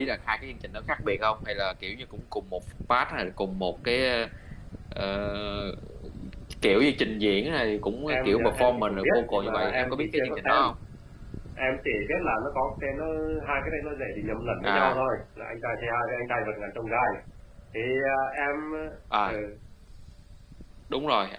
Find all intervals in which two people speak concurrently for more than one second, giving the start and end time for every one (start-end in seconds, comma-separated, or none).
8.1-10.7